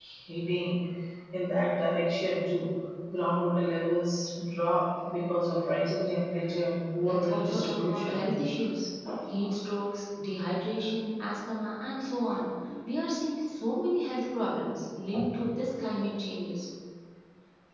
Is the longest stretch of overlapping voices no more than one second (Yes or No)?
No